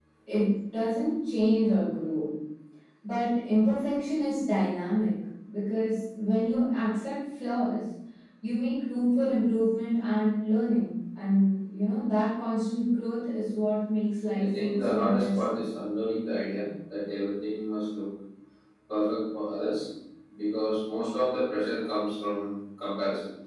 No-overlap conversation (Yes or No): No